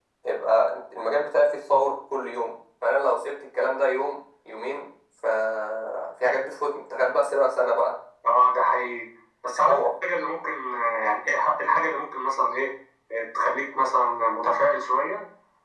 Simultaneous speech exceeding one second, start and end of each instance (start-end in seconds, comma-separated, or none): none